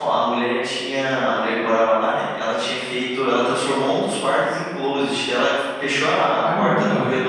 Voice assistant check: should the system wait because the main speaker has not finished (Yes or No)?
Yes